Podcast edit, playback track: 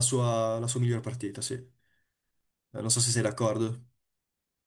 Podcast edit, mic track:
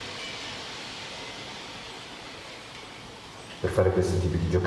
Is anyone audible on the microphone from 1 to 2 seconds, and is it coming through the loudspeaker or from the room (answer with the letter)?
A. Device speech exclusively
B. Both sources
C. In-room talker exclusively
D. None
D